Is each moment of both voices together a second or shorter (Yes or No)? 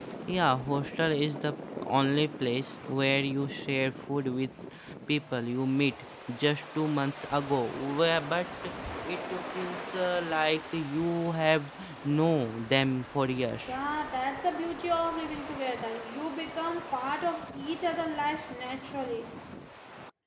Yes